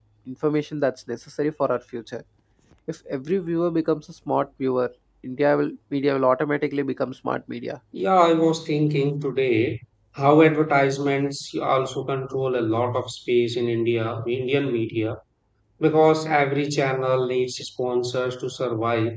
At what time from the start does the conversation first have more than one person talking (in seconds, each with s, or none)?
none